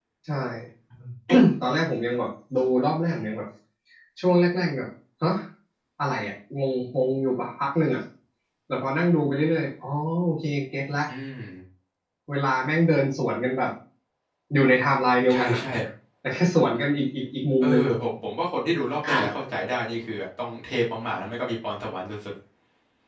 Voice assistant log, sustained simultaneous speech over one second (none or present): none